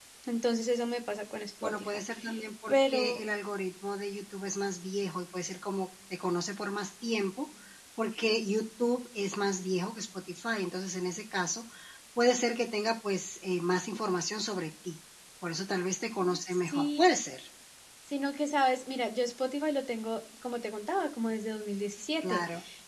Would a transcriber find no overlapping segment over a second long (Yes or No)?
Yes